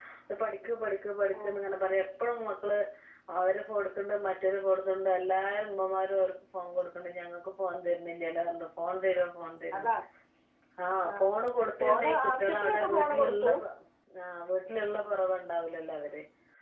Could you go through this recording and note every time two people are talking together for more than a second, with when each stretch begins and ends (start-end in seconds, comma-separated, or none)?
11.8-13.5